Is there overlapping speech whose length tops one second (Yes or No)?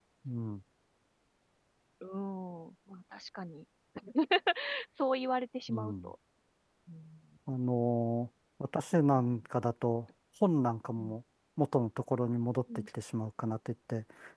No